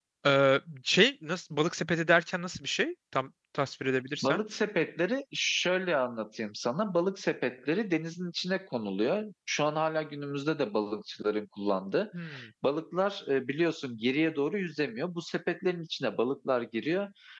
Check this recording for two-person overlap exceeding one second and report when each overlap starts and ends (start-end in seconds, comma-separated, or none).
none